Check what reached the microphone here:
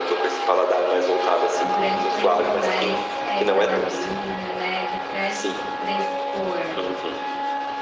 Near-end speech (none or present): present